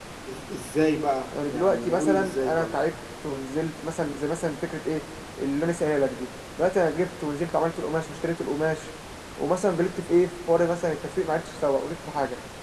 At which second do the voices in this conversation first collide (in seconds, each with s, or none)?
1.3 s